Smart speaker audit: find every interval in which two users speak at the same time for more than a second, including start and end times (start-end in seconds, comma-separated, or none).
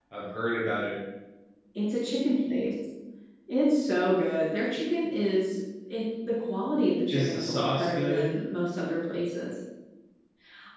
7.1-8.3